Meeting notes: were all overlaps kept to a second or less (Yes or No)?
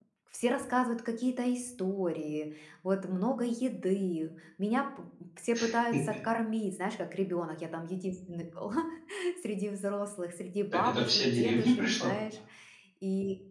No